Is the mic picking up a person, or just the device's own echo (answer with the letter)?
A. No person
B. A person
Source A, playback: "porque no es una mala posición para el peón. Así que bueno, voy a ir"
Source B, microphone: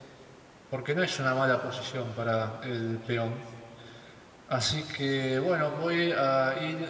A